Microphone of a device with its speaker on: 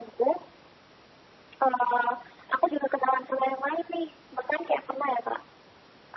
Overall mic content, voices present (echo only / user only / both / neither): echo only